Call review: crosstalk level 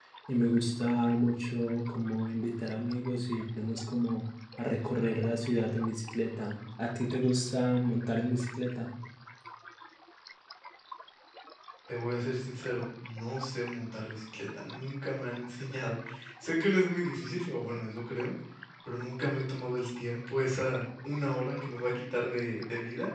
none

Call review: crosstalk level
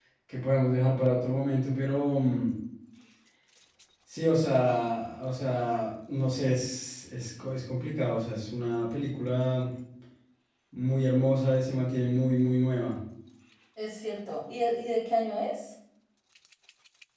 none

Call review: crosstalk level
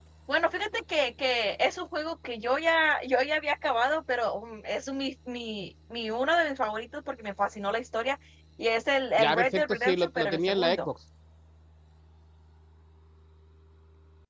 present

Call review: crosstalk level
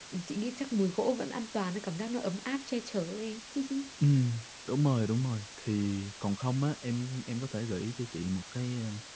none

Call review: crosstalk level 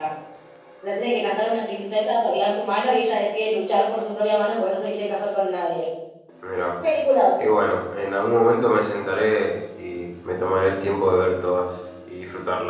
none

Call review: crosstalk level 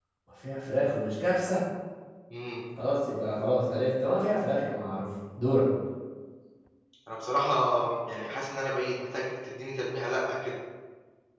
none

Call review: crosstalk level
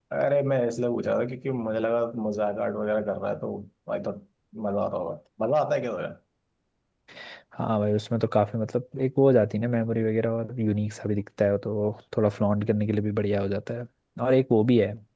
none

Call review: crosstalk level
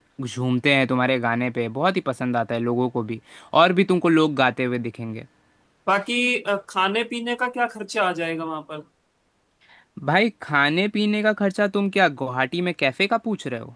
none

